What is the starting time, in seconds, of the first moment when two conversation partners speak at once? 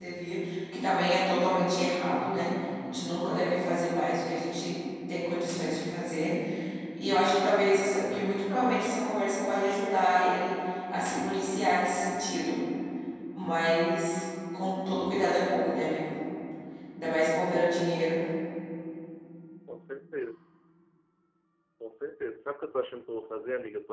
none

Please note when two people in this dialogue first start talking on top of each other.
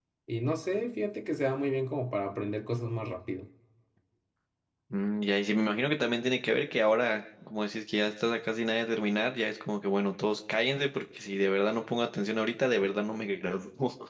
none

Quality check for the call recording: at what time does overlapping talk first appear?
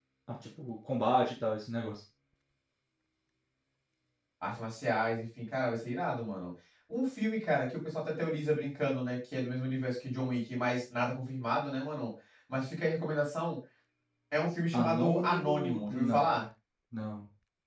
15 s

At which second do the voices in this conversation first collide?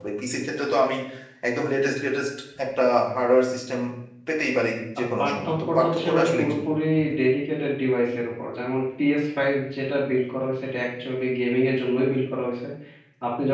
5 s

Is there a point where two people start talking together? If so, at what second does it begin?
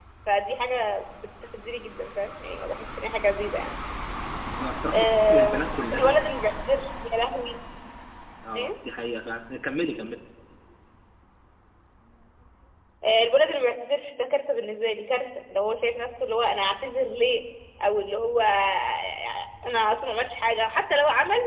5 s

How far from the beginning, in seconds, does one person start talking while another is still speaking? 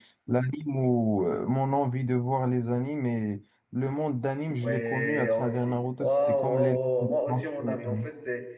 5 s

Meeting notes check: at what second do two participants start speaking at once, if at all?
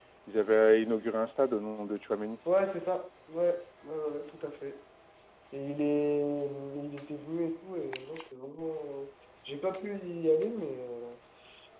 none

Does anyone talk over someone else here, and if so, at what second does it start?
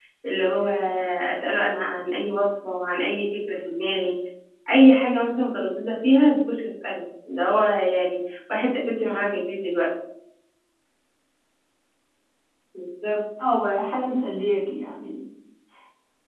none

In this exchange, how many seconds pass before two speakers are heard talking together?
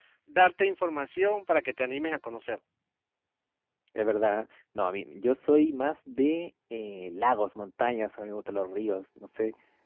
none

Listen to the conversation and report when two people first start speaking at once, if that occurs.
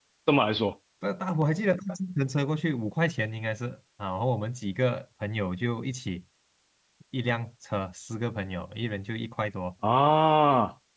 none

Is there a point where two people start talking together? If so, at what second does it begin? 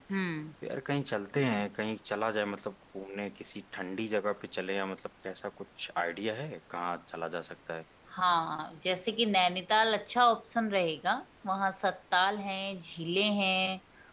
none

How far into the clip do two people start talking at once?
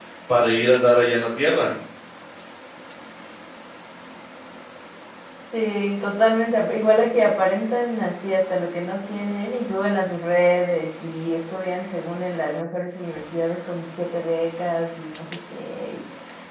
none

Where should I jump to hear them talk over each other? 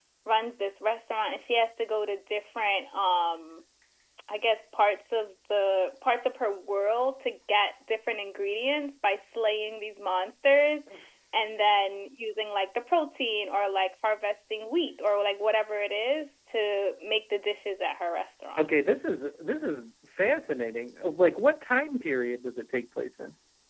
none

